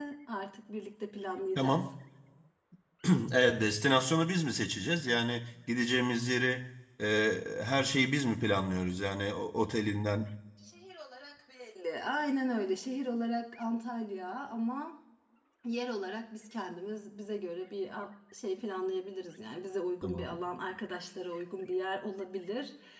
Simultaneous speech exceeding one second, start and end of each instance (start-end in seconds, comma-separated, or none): none